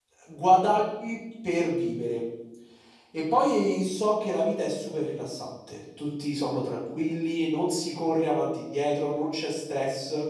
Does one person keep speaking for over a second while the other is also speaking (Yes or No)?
No